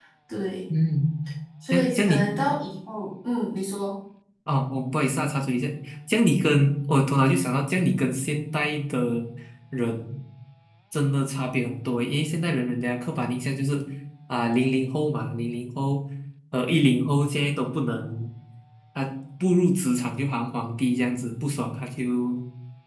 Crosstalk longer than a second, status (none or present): none